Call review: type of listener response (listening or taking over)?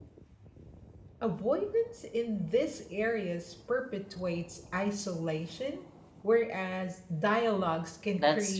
taking over